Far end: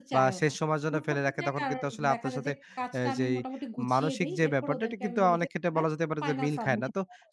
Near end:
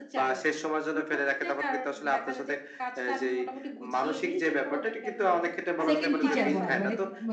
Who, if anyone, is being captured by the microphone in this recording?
both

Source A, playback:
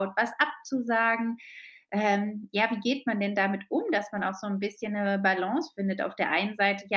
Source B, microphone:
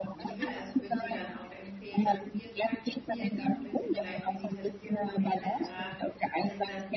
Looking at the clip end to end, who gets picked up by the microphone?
both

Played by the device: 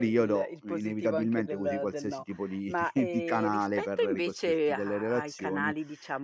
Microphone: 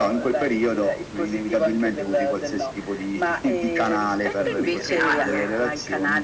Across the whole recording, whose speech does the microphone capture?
both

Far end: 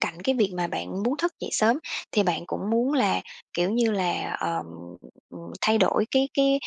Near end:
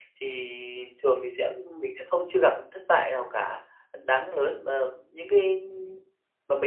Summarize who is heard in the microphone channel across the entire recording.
user only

